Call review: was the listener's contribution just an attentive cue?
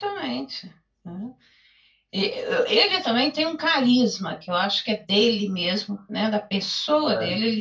Yes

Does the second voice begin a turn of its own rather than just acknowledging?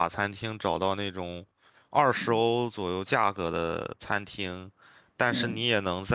No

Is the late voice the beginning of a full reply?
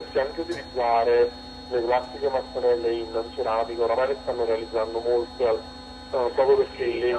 Yes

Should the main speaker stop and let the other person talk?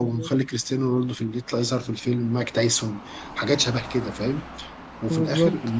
No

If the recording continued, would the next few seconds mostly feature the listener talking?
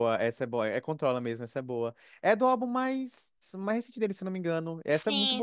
Yes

